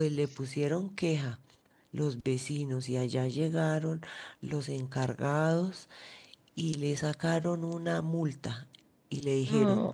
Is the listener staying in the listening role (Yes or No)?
Yes